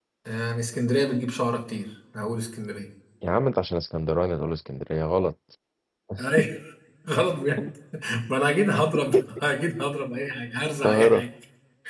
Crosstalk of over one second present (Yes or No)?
No